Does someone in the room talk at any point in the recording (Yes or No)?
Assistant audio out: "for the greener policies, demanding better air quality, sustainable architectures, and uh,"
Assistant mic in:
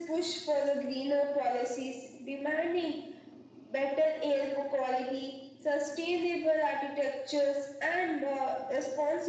No